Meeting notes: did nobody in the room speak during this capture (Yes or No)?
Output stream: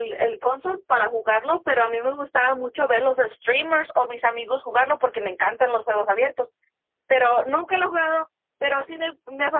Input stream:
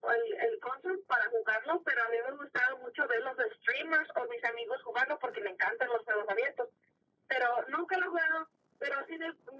Yes